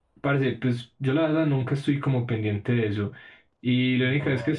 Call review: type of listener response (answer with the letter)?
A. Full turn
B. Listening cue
B